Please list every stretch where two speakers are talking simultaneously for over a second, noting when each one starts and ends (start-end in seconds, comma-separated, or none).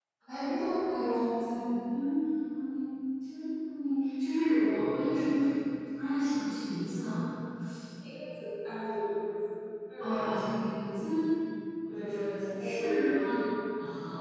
11.9-13.4